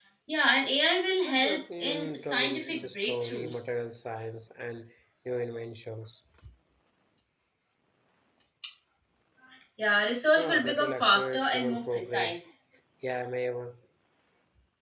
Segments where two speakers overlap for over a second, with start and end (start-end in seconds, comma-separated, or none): 1.2-3.6, 10.4-12.4